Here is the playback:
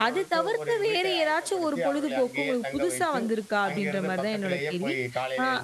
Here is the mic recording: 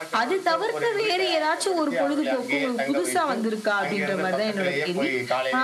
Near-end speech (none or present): none